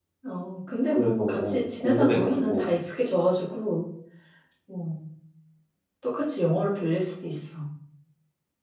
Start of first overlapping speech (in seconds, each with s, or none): 0.9 s